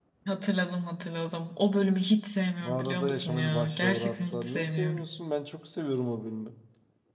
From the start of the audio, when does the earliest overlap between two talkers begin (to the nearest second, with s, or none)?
3 s